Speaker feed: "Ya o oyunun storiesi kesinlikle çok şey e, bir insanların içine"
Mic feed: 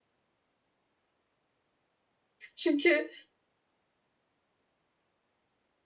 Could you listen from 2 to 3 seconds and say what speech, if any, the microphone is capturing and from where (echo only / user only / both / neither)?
user only